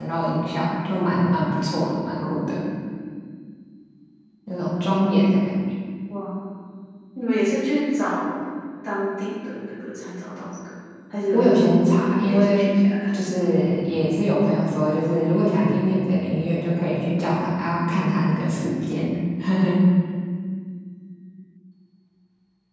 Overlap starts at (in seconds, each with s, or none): 11.3 s